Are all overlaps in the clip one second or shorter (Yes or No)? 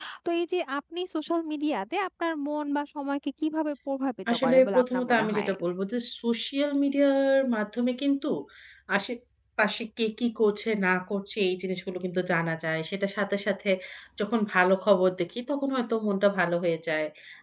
No